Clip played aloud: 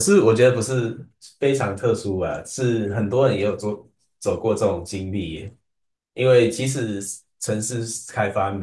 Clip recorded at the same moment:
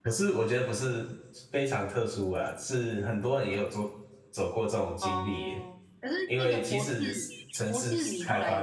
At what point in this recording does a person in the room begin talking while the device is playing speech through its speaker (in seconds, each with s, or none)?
5.0 s